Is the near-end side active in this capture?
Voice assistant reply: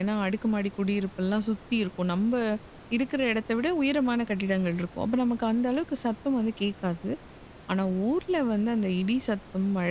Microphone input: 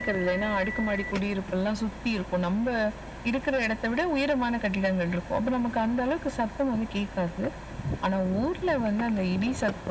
No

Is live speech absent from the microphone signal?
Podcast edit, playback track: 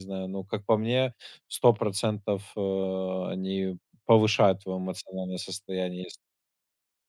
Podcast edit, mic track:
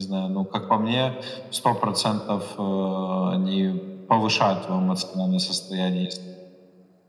Yes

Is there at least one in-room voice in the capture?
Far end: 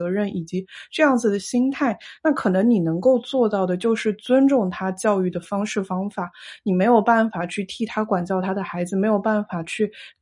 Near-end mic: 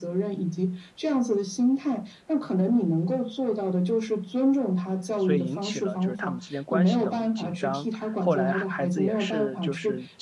Yes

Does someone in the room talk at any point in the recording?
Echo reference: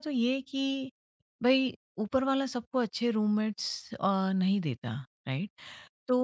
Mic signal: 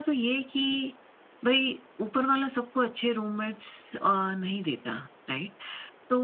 No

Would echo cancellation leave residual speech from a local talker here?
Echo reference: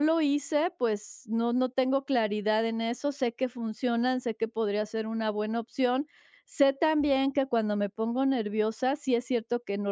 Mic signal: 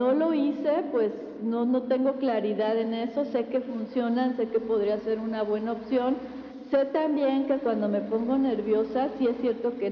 No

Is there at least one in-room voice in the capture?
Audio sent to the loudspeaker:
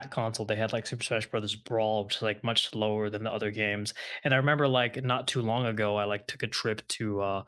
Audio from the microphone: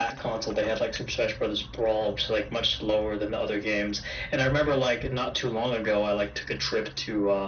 No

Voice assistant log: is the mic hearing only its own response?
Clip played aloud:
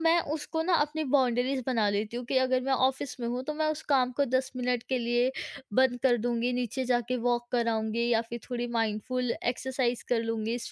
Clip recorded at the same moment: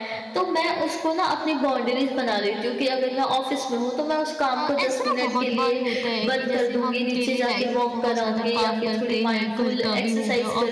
No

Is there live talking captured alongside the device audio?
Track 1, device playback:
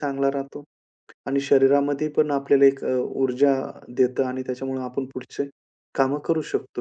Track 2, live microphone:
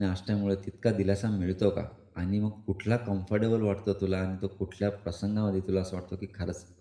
Yes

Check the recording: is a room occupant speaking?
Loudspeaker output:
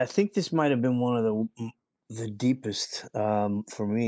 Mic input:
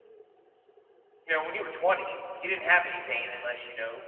Yes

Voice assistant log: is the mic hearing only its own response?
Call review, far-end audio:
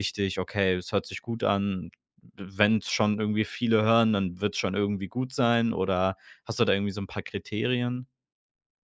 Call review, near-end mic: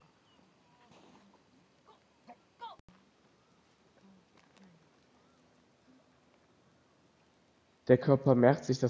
No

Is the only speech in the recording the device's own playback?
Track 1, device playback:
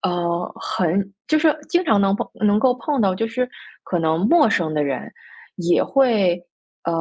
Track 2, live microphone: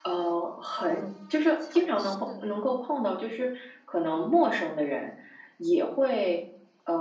No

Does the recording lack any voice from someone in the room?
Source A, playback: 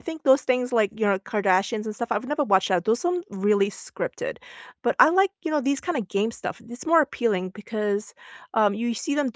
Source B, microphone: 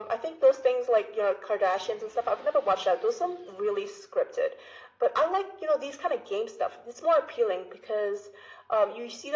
Yes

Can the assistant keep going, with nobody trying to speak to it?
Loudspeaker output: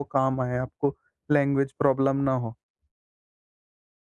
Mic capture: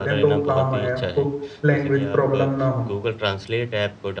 No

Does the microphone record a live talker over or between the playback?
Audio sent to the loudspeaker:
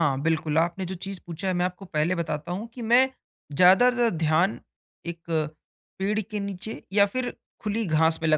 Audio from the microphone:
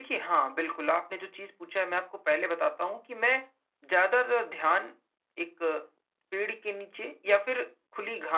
No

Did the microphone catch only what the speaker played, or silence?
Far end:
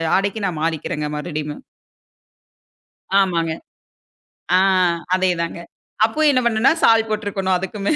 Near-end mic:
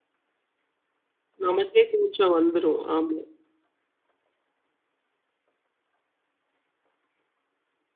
No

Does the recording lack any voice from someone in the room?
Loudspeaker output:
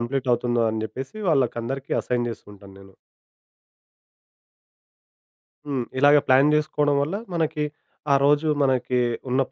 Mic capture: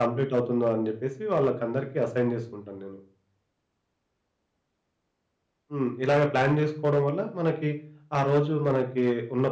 Yes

